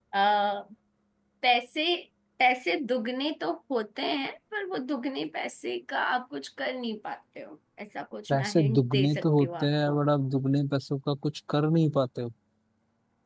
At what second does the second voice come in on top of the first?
8.3 s

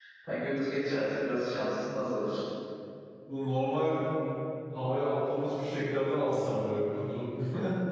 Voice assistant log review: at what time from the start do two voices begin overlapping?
none

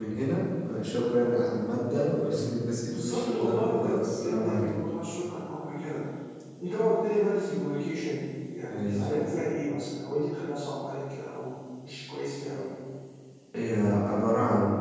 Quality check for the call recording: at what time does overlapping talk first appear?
2.8 s

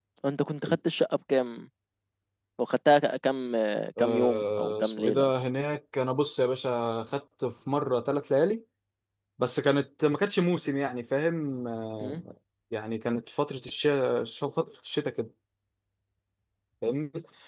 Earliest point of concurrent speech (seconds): 4.0 s

